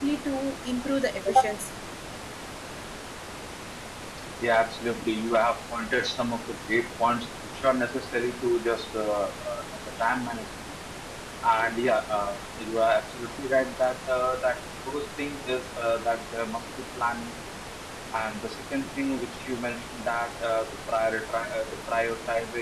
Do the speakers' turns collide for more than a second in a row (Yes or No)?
No